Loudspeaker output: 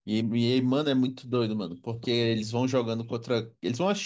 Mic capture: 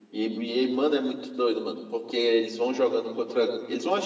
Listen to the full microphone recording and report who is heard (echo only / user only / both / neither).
echo only